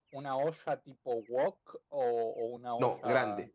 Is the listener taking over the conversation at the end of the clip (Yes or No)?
Yes